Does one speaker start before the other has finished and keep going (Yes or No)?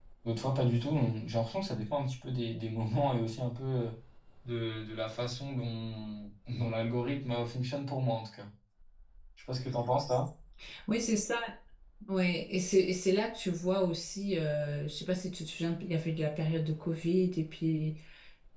No